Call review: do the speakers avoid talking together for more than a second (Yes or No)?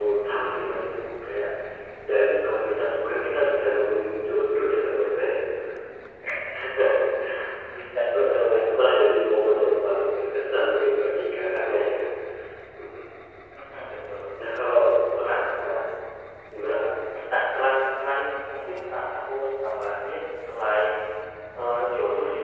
Yes